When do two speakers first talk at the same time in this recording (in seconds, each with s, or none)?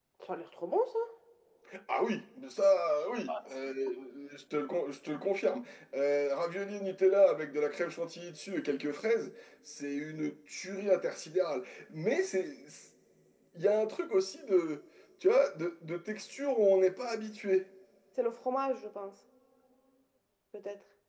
none